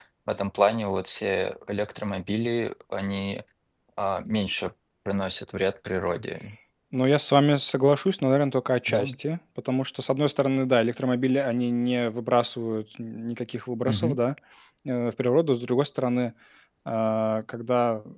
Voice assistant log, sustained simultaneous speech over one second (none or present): none